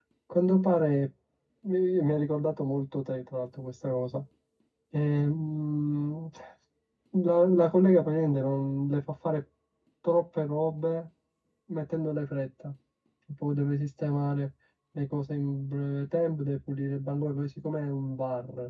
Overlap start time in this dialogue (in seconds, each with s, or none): none